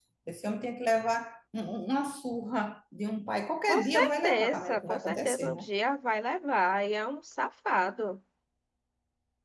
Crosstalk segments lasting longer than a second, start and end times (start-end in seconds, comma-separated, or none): 3.7-5.7